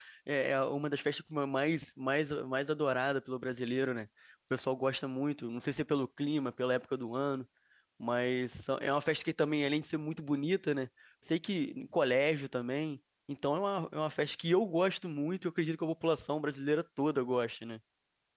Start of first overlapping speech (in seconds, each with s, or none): none